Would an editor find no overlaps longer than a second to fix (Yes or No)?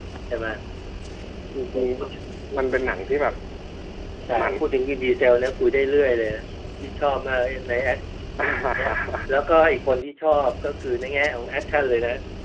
Yes